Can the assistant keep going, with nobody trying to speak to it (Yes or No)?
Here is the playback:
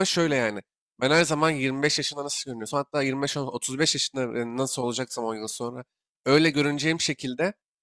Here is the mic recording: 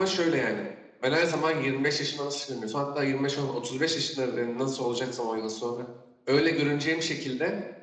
Yes